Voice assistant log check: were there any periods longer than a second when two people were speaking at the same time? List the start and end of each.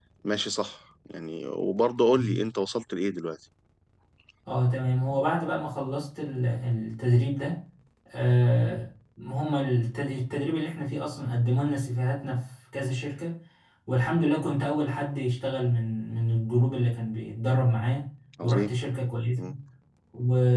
none

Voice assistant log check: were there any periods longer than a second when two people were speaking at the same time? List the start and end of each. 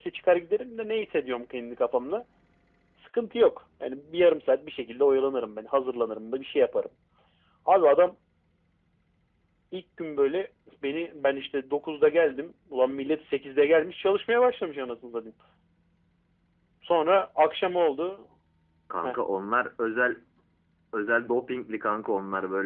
none

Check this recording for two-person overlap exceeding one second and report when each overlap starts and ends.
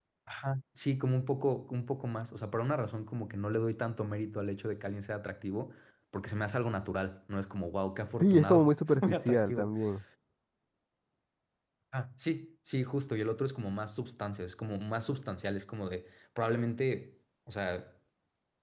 8.2-9.7

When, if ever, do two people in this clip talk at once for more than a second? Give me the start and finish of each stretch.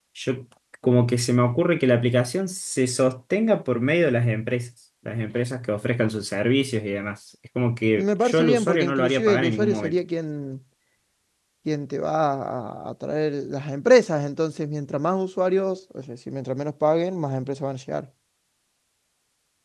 8.0-10.0

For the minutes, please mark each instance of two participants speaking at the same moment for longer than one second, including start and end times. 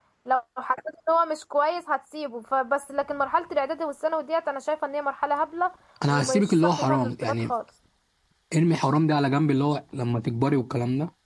6.1-7.5

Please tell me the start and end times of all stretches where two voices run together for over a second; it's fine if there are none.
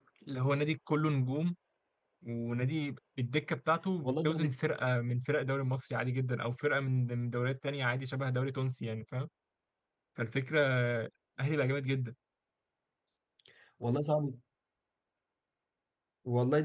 none

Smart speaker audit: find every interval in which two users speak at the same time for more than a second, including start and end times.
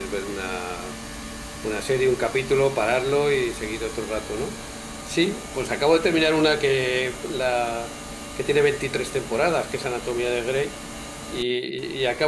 none

